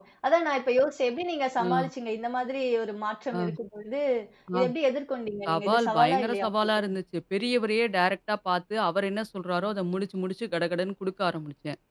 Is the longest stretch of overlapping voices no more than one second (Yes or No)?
No